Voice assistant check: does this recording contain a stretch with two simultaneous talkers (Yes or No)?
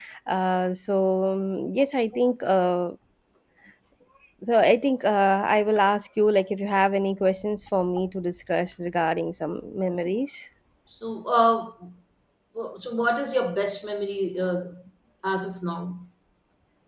No